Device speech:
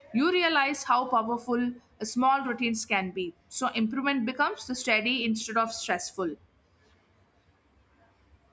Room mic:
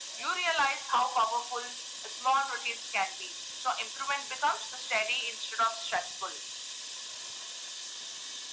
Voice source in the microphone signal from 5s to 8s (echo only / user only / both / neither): echo only